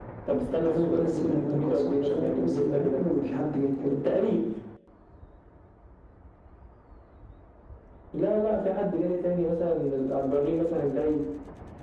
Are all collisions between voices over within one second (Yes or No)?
No